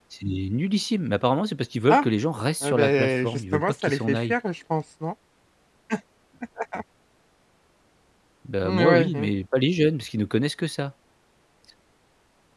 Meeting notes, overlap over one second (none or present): present